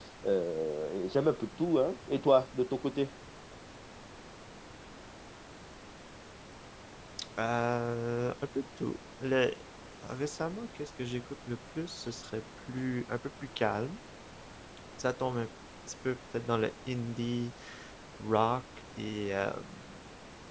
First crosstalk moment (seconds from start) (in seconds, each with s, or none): none